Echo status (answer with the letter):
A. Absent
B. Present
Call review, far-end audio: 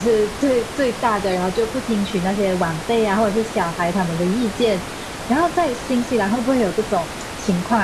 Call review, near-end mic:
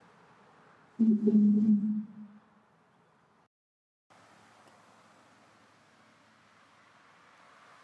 A